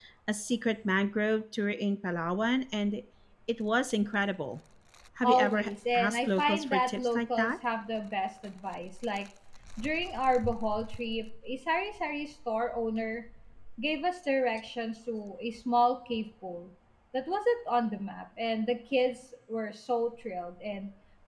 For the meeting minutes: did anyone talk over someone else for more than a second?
Yes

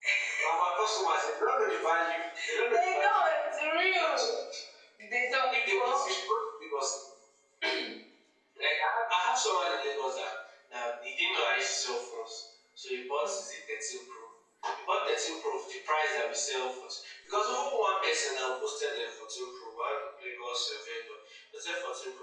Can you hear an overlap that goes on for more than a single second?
No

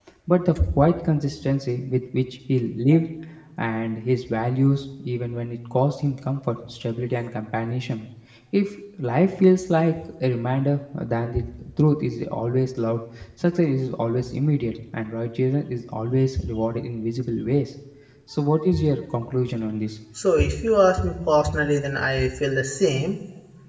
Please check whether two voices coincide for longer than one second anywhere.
No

